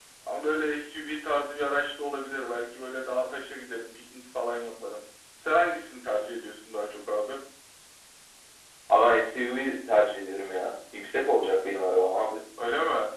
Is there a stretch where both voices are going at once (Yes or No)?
No